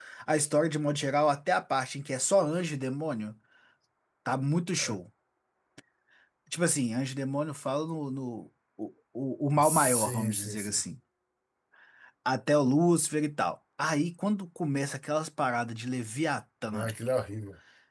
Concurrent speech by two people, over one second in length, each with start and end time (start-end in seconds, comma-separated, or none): 9.6-10.8